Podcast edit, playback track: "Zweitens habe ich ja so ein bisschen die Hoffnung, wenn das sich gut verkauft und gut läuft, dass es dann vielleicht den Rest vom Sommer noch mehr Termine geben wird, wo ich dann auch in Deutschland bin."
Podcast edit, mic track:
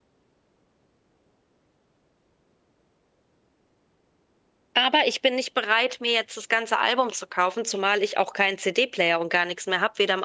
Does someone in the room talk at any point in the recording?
Yes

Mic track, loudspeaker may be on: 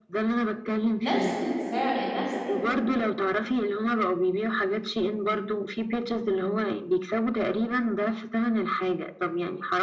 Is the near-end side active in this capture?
Yes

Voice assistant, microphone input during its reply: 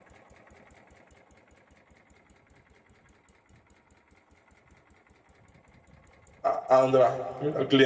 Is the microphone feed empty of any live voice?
No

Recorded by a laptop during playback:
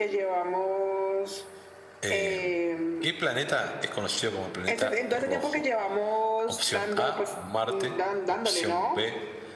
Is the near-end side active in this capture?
Yes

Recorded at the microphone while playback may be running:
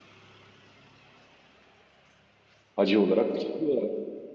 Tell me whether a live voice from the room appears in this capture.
Yes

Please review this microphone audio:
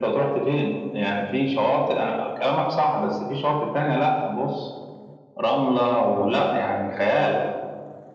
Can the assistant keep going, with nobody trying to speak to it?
Yes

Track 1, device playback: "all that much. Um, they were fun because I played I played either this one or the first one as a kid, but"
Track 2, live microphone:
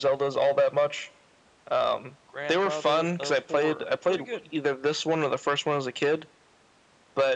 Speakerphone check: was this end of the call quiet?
No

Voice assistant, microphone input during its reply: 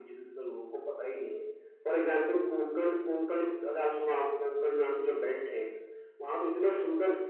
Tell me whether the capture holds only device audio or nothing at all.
Yes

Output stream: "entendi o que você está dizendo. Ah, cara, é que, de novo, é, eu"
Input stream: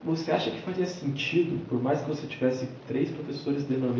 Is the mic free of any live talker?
No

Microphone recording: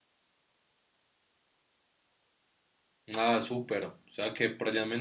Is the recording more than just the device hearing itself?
Yes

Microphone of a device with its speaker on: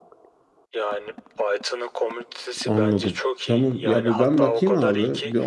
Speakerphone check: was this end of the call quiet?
No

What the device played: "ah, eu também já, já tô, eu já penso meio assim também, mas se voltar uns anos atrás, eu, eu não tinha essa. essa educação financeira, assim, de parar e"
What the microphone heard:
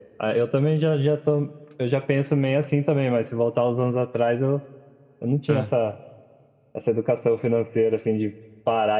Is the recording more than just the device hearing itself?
Yes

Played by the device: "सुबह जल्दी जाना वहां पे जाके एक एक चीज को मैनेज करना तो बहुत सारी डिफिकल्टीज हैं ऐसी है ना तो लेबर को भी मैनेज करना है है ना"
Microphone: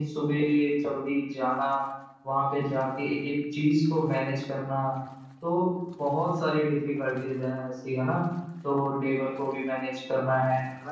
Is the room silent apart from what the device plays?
Yes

